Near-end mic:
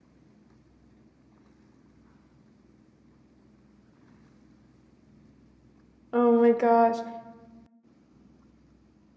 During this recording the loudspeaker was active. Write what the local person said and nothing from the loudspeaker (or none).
Oh my gosh.